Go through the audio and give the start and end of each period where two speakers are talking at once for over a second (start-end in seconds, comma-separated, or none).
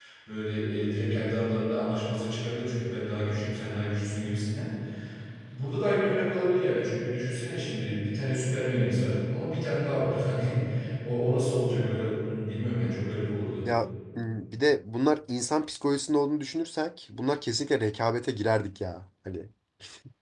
none